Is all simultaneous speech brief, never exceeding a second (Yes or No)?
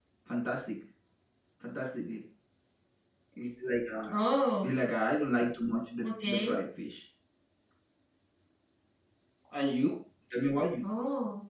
Yes